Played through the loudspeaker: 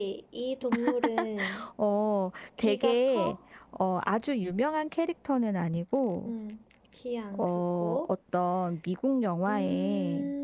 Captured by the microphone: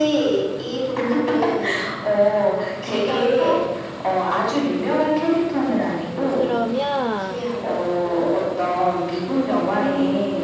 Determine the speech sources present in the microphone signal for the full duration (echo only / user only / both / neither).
both